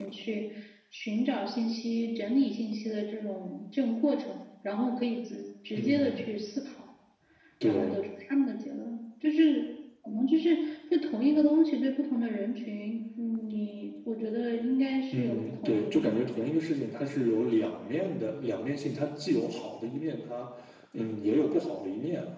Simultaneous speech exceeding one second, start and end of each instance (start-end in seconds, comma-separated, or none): 15.1-16.3